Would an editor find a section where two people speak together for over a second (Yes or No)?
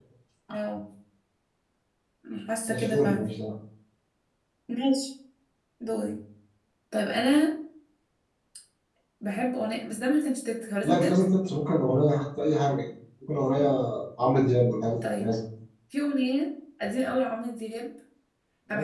No